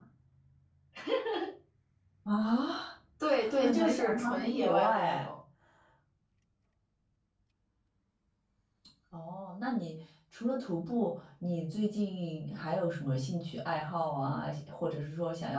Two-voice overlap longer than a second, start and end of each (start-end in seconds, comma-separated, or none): 3.6-5.3